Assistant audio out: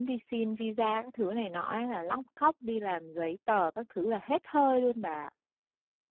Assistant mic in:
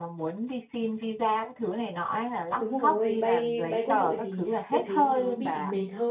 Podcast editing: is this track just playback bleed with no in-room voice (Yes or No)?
No